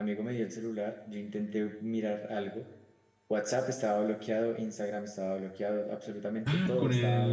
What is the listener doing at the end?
taking over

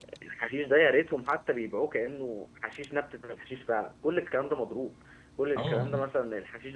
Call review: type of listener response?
listening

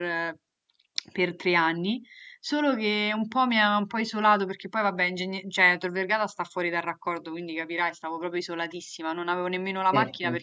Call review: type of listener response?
listening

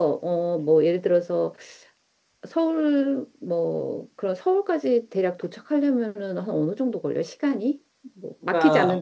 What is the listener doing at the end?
taking over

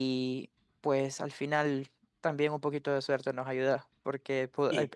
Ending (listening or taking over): listening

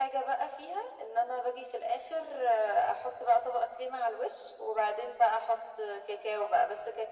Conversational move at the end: listening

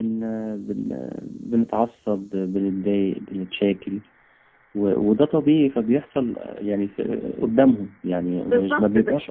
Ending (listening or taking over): taking over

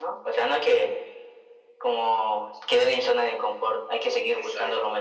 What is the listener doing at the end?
taking over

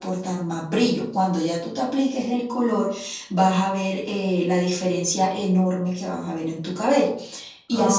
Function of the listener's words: taking over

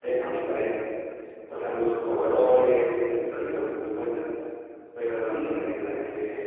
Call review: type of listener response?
listening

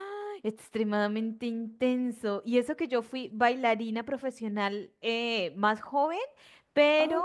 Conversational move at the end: listening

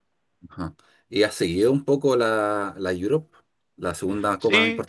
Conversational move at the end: taking over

